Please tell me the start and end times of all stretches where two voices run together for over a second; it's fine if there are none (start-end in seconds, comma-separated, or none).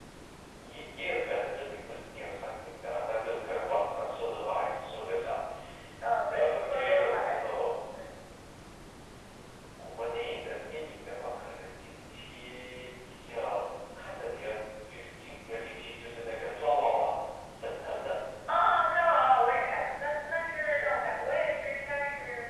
6.3-7.6